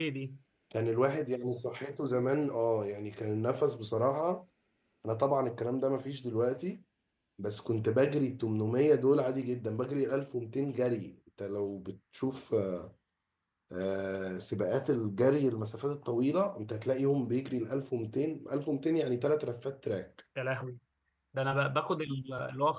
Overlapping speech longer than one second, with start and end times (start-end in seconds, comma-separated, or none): none